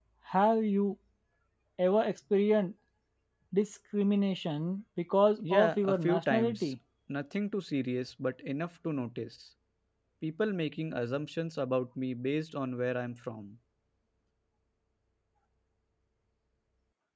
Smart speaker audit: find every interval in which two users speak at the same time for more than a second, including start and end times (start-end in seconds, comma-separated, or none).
5.4-6.7